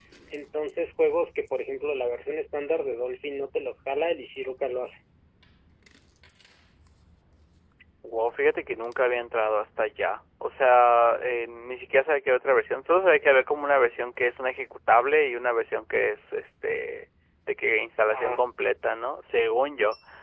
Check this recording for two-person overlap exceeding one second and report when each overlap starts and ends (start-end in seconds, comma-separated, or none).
none